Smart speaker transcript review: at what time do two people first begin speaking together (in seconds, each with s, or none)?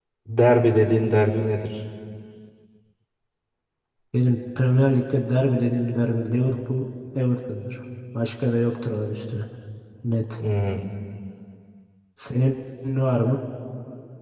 none